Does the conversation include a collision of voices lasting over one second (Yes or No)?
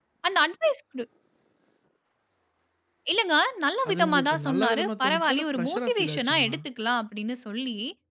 Yes